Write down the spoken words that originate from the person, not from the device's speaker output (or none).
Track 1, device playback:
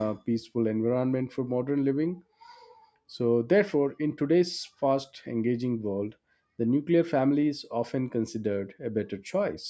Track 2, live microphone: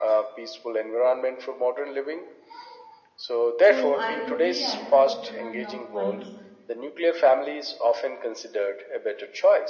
So, I totally agree with you and your points.